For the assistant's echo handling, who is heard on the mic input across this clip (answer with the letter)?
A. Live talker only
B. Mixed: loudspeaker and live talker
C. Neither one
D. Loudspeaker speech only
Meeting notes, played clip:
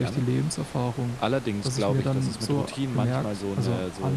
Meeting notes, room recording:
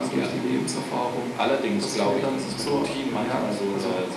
D